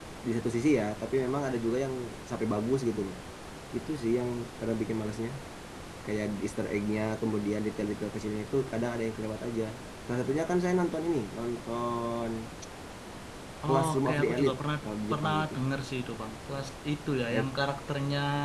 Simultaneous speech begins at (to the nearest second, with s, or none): 14 s